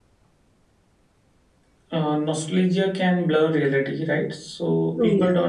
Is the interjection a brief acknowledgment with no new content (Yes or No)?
Yes